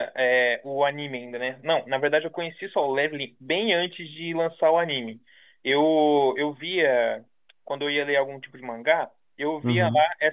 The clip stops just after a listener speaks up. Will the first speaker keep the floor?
Yes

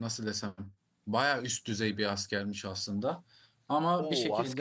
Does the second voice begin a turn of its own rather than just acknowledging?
Yes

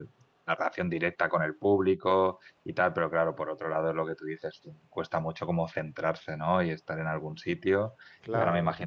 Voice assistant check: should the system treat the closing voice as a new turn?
No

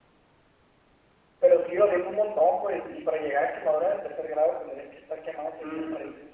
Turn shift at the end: Yes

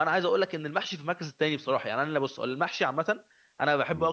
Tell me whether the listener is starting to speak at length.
No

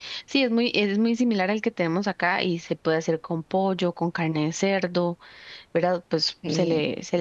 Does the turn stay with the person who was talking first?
Yes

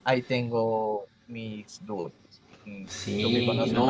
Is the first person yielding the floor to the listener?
Yes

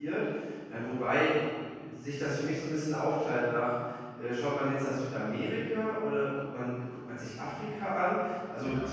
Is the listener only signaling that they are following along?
Yes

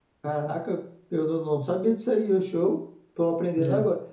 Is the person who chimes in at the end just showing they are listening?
Yes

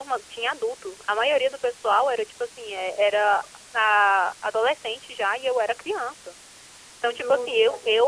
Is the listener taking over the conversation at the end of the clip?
No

